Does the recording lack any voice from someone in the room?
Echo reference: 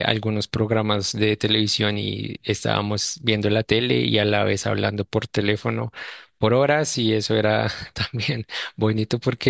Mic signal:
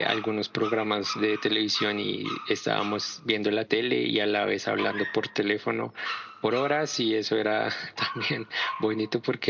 Yes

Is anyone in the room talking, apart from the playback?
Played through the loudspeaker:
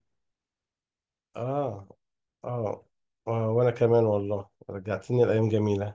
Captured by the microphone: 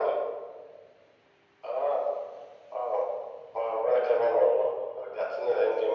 No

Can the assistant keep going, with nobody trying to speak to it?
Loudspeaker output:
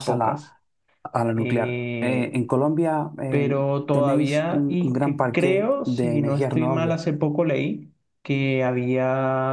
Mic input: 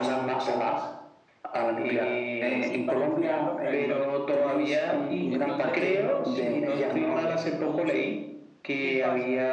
No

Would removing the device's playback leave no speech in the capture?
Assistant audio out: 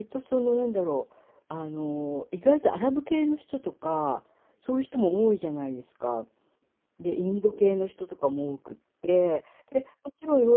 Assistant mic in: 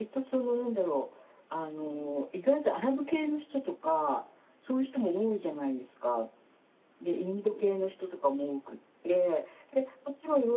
Yes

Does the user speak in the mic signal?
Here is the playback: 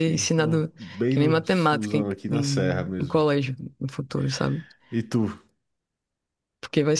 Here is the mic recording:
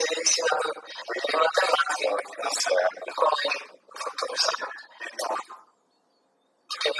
No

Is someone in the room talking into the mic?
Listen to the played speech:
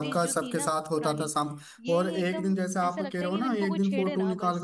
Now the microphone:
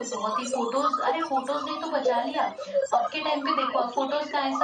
Yes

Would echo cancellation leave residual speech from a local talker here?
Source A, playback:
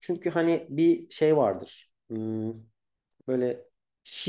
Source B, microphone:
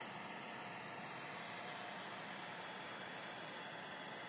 No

